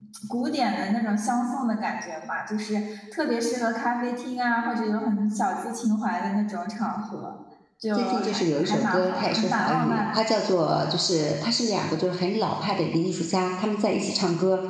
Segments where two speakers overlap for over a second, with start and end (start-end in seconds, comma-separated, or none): 7.9-10.3